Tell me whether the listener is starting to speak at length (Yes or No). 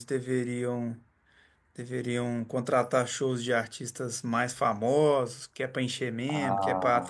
No